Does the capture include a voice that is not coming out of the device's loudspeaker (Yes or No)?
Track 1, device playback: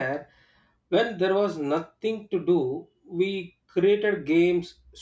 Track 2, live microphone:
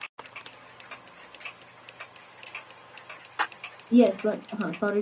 Yes